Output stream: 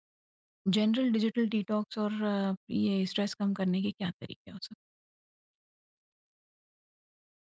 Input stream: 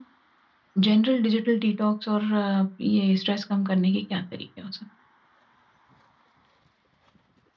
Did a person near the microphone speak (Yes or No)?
No